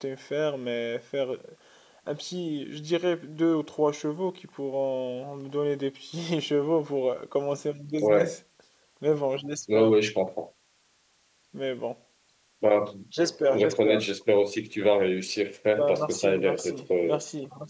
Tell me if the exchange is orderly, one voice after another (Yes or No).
No